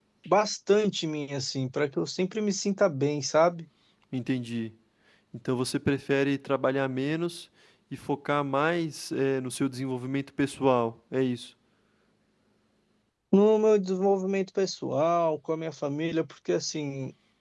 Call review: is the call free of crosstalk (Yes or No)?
Yes